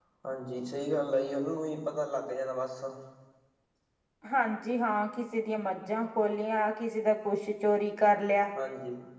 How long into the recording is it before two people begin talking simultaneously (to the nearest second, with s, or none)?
none